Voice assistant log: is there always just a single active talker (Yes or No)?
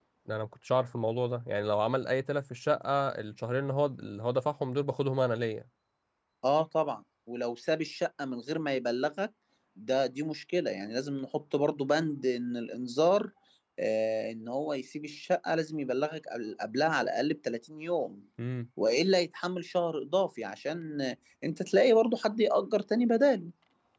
Yes